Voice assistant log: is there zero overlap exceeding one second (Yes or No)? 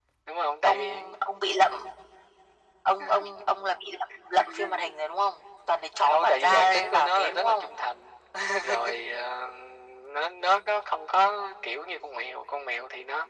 No